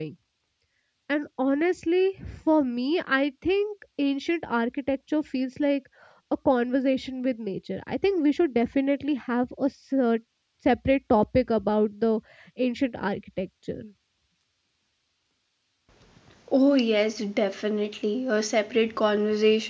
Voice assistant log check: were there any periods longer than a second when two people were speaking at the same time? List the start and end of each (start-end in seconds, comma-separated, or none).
none